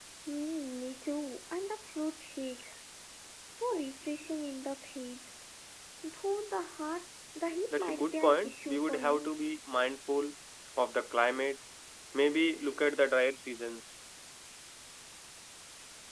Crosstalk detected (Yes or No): Yes